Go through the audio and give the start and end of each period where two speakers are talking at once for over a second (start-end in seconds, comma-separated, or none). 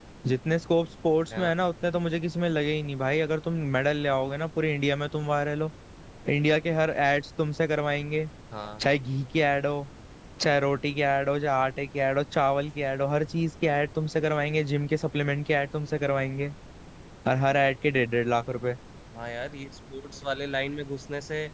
none